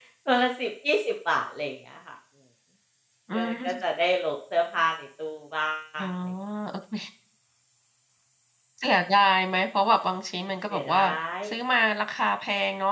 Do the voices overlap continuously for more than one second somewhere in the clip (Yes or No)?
No